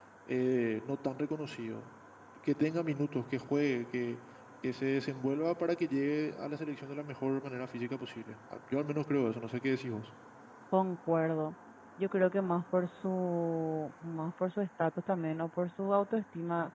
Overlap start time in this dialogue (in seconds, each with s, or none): none